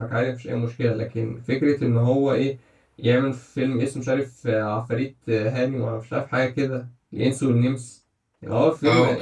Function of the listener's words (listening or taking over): taking over